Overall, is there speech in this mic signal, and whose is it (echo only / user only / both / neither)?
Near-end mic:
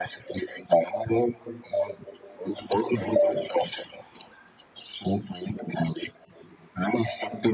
echo only